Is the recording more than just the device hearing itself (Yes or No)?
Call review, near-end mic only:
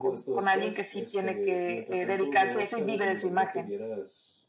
Yes